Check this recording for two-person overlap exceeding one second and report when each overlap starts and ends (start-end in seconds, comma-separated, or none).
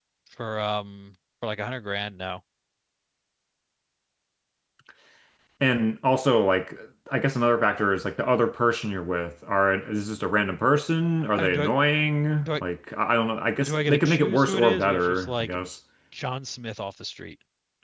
13.6-15.5